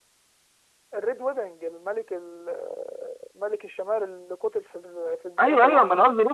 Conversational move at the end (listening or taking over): taking over